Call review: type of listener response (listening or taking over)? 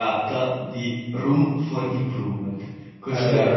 listening